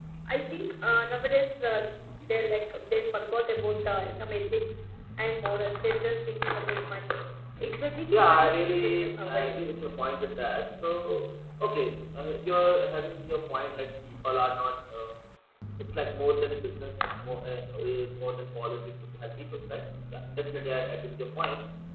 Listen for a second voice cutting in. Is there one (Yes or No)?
Yes